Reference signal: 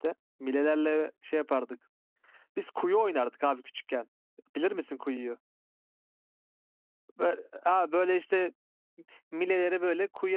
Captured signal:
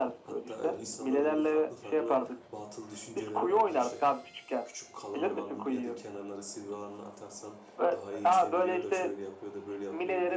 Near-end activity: present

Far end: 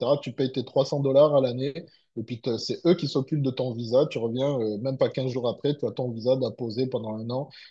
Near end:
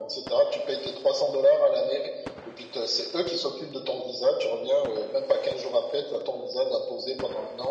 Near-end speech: none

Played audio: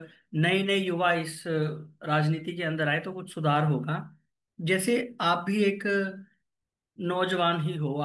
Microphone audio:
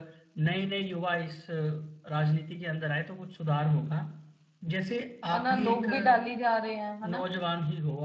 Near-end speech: present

